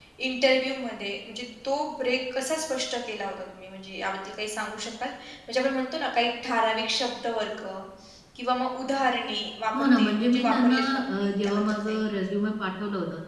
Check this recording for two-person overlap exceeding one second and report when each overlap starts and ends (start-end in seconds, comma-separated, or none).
9.8-12.0